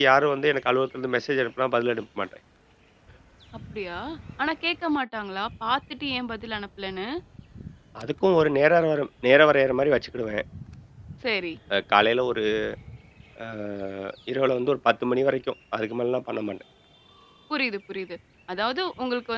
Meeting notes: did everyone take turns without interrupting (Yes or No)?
Yes